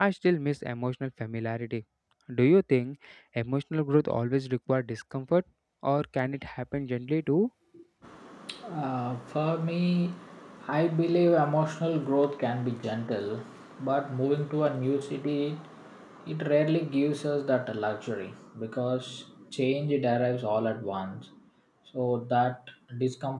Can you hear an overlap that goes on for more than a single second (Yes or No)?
No